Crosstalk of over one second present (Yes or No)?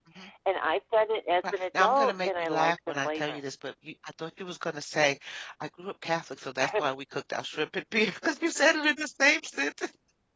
Yes